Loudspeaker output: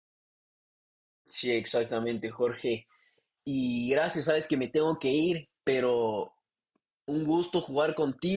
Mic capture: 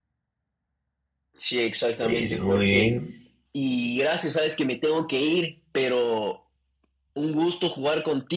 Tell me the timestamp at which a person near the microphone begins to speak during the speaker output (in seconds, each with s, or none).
2.0 s